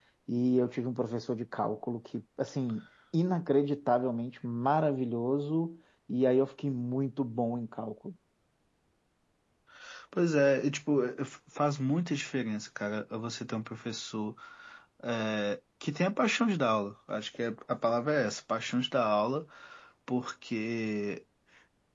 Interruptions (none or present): none